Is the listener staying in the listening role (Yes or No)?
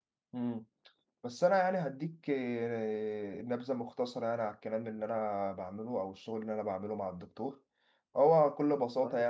Yes